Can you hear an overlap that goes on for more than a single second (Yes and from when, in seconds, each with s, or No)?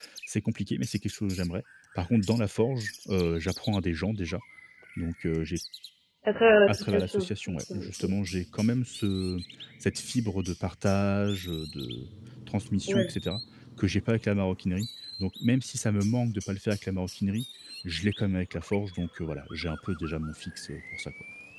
Yes, from 6.7 s